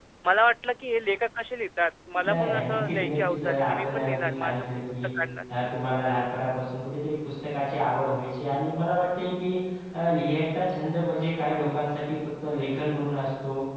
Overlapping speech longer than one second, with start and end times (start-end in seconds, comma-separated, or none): 2.3-4.8